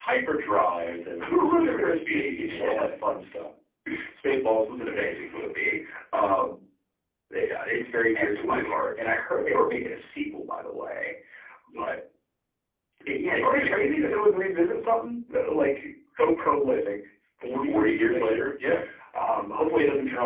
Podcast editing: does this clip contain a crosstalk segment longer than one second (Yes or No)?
Yes